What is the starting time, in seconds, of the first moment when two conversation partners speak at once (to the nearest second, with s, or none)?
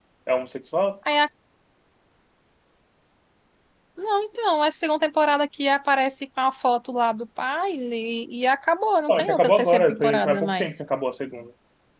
9 s